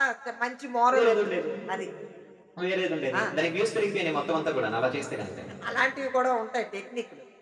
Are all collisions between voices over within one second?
Yes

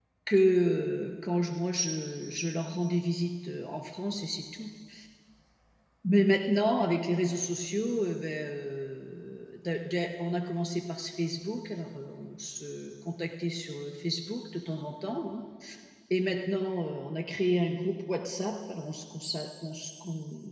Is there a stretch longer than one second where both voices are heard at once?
No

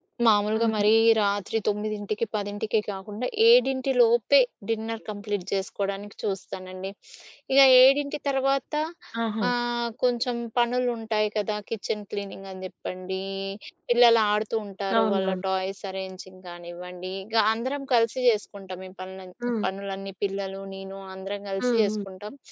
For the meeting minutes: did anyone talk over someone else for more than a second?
No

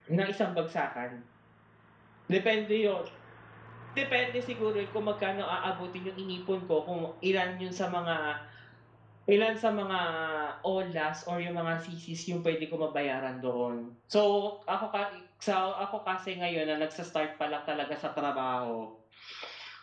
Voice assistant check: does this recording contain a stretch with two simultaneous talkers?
No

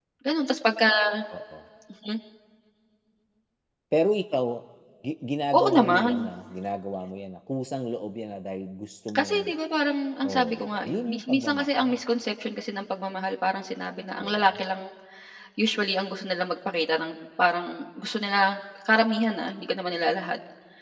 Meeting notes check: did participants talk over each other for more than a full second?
Yes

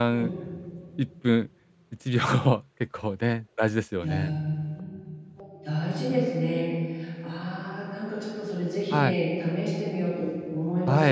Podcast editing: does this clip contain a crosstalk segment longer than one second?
No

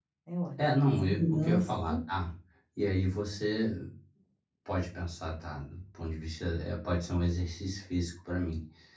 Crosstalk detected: Yes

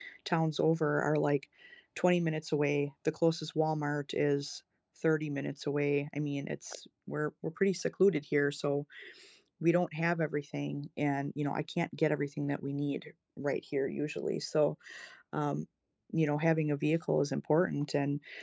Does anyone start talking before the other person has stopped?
No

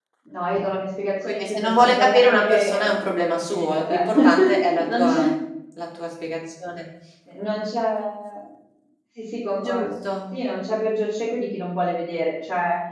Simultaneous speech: Yes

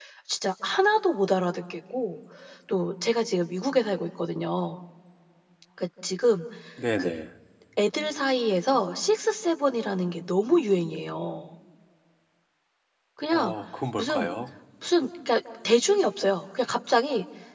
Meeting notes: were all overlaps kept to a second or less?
Yes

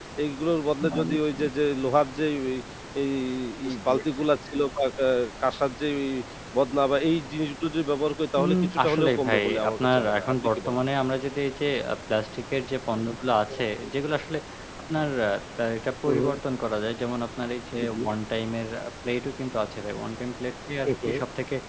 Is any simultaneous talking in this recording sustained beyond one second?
Yes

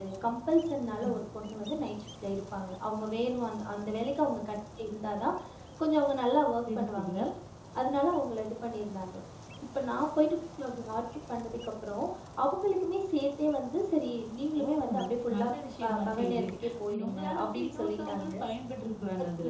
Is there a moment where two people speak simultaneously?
Yes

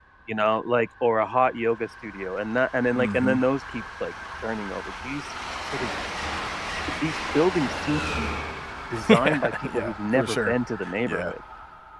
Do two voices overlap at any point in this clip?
Yes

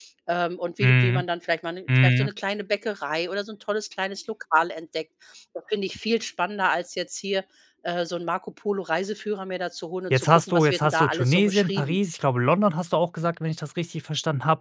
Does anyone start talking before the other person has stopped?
Yes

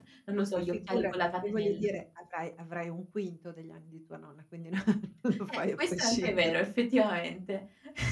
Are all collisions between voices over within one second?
No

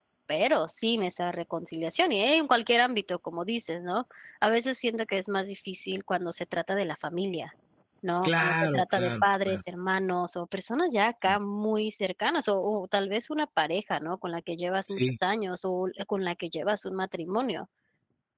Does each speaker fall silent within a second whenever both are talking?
No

